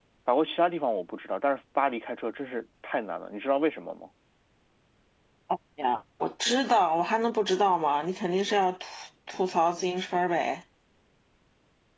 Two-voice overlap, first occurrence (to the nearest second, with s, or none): none